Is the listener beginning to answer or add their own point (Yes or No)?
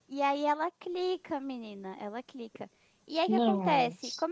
No